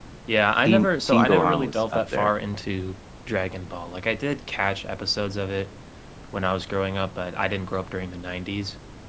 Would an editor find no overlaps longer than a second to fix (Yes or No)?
No